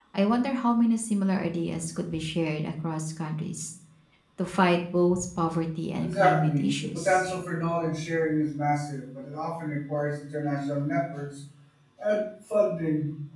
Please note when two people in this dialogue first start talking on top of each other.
6.0 s

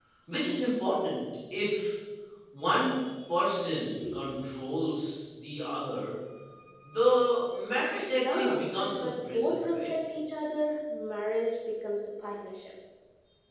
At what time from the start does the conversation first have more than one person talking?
8.1 s

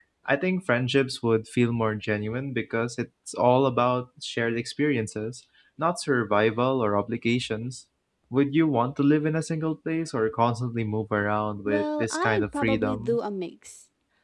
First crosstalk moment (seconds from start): 11.7 s

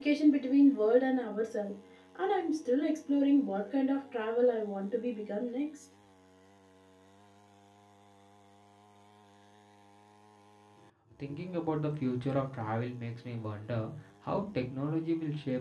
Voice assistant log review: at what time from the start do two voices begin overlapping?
none

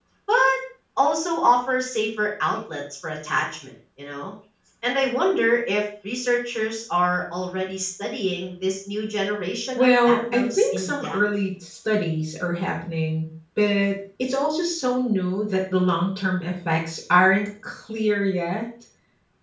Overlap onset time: 9.8 s

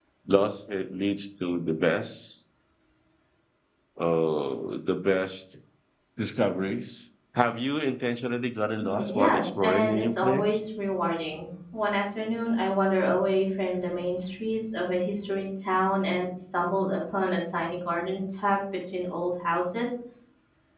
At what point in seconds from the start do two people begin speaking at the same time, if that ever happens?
8.8 s

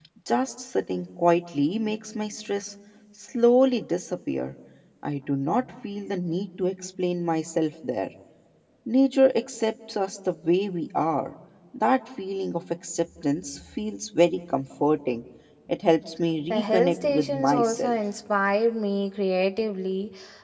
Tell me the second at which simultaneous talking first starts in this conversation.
16.5 s

